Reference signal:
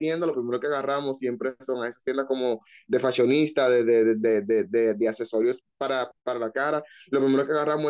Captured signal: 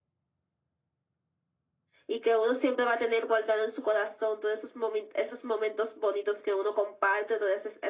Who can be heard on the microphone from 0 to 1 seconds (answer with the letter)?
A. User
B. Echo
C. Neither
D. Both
C